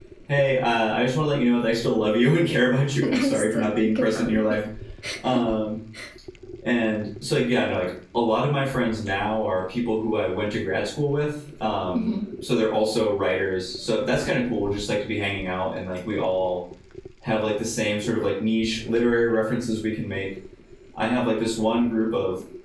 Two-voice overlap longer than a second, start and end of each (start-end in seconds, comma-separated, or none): 3.0-4.6